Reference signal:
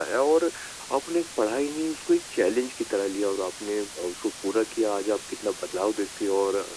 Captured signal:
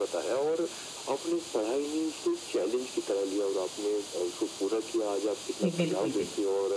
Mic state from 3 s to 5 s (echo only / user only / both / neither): echo only